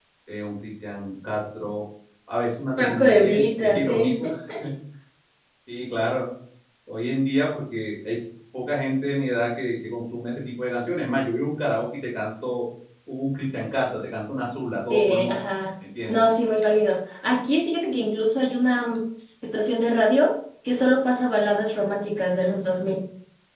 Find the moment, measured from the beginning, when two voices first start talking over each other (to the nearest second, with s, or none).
3 s